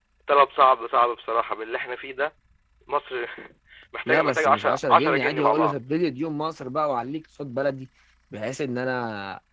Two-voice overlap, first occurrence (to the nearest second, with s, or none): 4 s